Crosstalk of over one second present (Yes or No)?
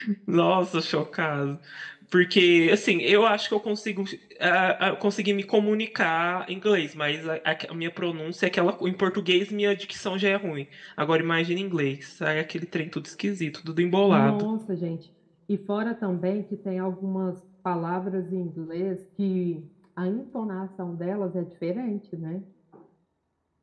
No